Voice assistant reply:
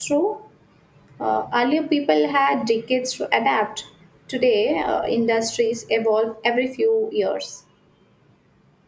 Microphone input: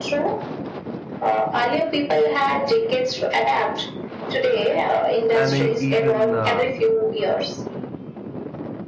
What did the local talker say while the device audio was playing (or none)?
And e- even uh,